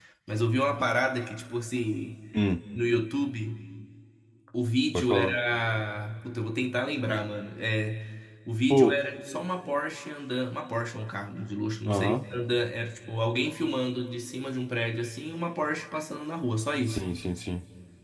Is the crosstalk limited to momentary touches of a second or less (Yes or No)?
Yes